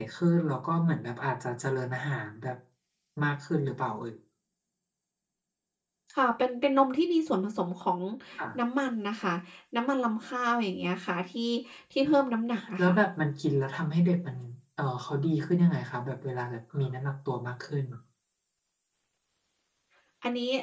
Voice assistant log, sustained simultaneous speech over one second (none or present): none